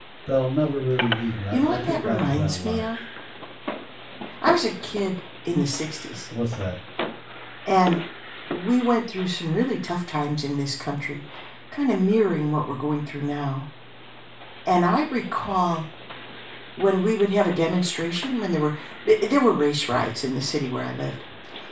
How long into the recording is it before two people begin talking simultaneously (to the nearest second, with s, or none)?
2 s